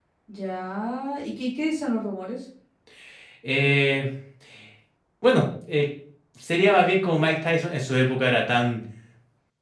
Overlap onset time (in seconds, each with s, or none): none